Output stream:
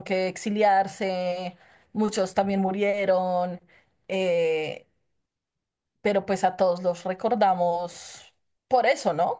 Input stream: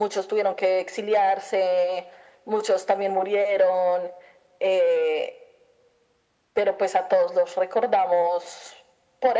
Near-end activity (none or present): none